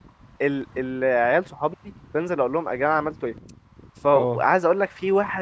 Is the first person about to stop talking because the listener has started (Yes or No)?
No